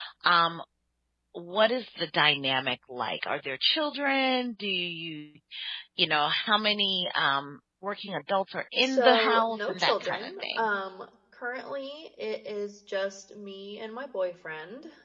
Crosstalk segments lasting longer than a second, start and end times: 8.8-10.7

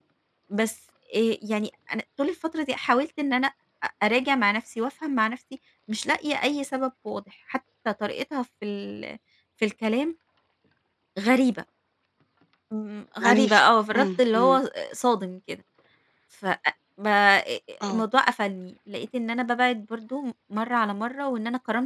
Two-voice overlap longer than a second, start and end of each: 13.2-14.6

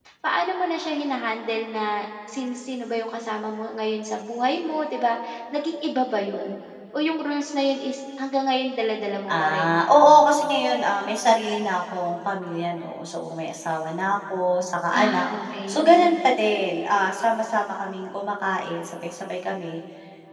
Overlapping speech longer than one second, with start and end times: none

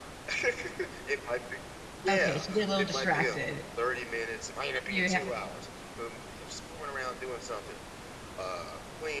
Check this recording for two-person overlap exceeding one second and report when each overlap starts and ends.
2.1-3.4

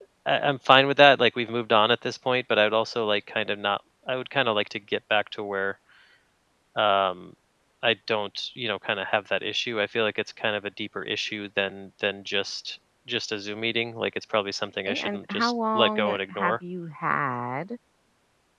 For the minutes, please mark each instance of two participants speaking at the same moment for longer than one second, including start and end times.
14.8-16.6

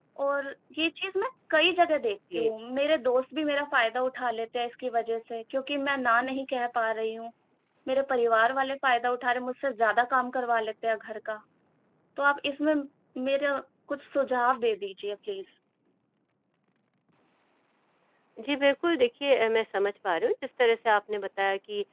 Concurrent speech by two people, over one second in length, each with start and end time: none

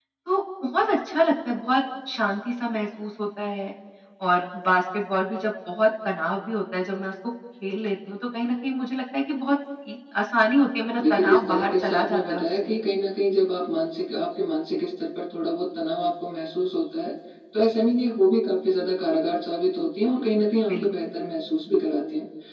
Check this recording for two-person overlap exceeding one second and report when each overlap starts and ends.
11.0-12.8

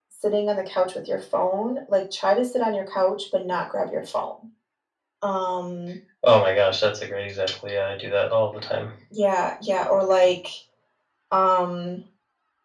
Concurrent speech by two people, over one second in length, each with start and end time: none

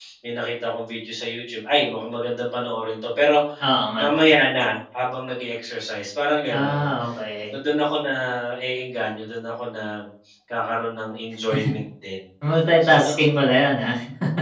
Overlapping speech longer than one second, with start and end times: none

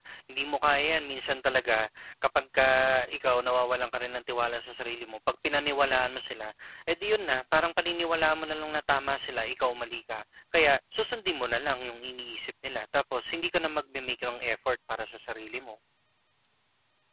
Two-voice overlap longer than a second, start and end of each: none

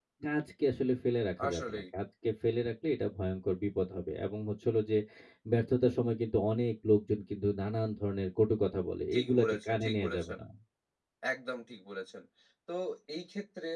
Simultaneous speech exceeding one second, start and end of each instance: 9.1-10.4

